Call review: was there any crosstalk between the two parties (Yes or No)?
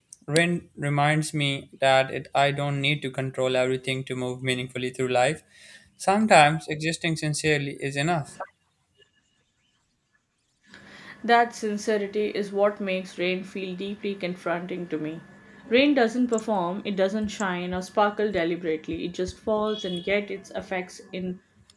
No